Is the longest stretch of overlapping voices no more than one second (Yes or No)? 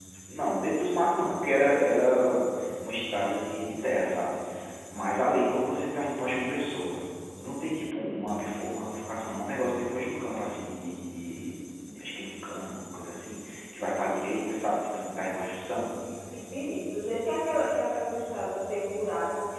Yes